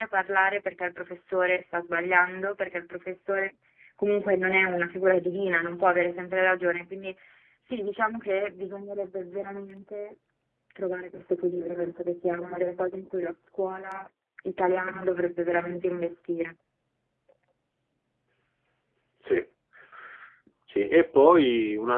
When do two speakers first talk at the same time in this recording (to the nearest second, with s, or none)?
none